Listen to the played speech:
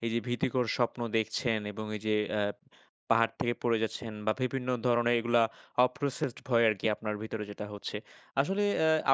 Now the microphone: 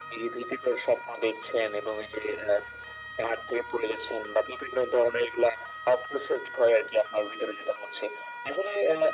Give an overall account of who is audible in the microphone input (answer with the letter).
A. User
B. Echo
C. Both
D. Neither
B